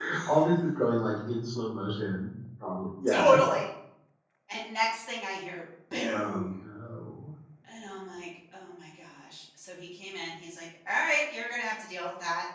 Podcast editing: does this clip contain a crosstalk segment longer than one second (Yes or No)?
No